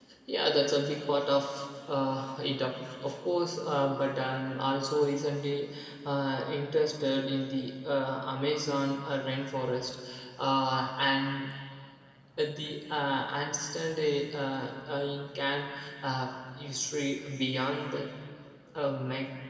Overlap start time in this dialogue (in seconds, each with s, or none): none